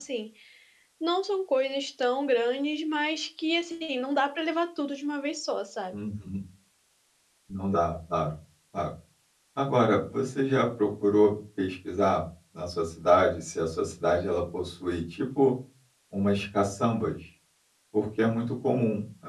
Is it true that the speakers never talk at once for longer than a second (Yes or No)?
Yes